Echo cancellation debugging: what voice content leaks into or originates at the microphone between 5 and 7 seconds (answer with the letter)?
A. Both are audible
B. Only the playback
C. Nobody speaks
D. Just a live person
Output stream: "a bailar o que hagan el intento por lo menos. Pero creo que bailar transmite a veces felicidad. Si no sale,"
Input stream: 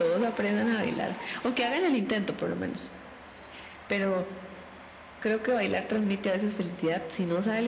B